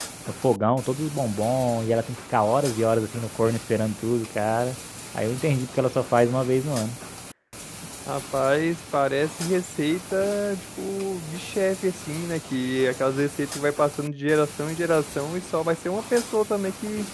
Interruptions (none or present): none